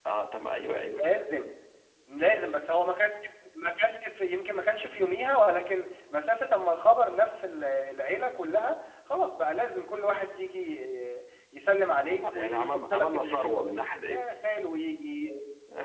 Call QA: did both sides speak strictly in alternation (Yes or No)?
No